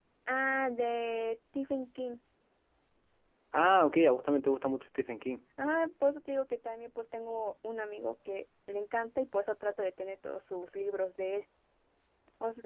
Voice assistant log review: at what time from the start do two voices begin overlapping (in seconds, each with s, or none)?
none